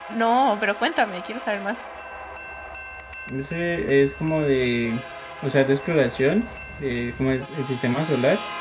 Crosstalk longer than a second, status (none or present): none